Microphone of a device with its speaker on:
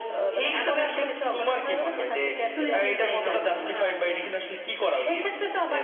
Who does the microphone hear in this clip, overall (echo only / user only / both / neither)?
both